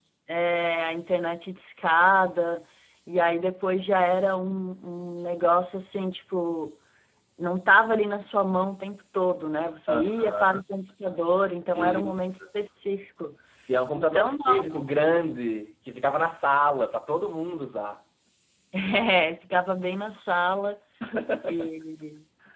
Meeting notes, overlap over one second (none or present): present